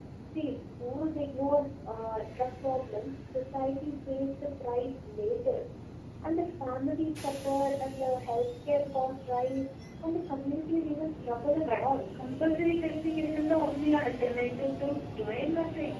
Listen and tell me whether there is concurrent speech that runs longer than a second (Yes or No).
No